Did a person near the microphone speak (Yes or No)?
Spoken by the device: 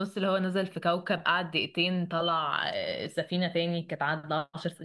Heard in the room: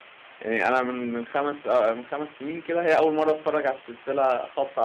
Yes